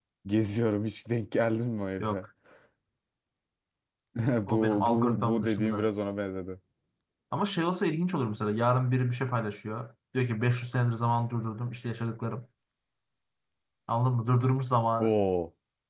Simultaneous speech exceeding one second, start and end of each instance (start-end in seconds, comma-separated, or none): 4.5-5.9